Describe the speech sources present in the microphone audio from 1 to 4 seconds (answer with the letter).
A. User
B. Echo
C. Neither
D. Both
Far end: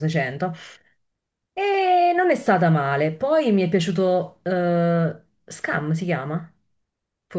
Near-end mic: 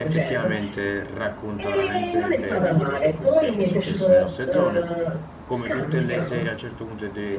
D